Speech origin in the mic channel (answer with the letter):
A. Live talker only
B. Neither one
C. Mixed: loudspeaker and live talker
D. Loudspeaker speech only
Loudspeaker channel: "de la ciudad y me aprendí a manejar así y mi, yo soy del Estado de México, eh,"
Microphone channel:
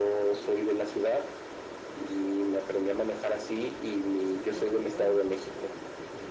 C